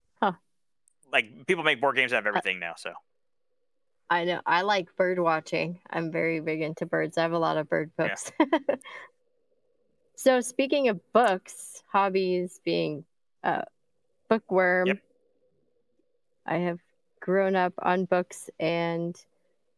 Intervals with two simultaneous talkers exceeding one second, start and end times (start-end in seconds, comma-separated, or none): none